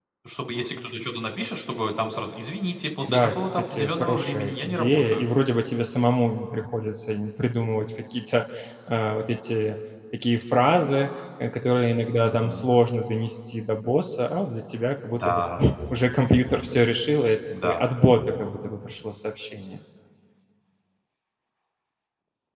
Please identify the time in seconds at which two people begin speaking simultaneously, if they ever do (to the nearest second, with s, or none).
3 s